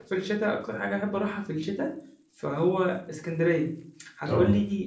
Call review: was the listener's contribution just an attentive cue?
Yes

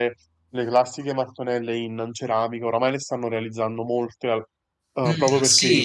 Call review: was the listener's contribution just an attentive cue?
No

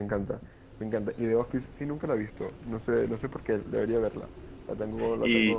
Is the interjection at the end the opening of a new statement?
Yes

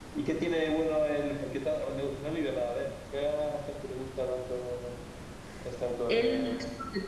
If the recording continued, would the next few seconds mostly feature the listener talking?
Yes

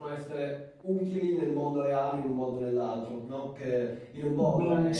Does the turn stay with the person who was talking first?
Yes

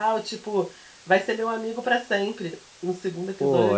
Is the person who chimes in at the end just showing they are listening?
No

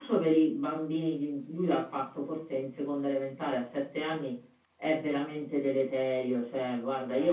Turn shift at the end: No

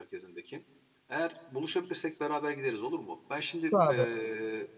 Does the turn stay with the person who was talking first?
Yes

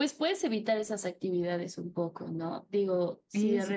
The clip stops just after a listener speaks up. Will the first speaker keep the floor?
Yes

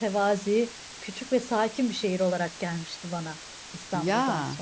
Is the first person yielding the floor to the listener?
Yes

